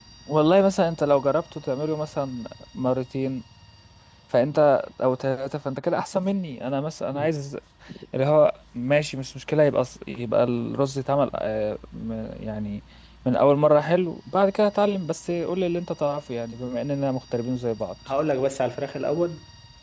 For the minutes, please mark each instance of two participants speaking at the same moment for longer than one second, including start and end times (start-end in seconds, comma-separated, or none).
none